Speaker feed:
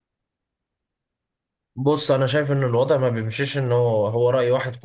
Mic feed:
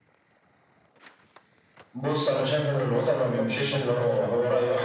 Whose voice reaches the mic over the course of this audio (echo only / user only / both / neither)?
both